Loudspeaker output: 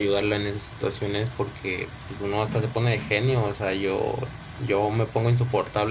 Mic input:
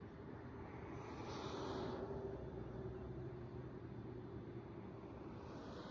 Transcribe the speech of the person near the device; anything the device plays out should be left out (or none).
none